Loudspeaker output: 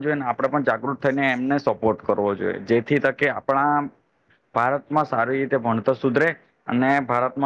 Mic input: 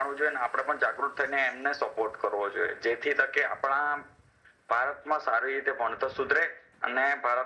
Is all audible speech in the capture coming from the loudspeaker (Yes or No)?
Yes